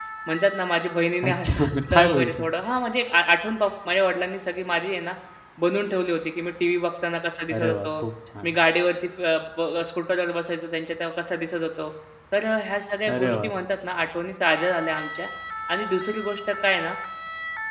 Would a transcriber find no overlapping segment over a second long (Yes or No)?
No